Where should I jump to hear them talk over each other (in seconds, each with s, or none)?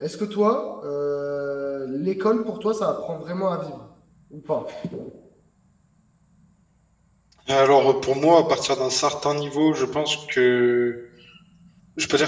none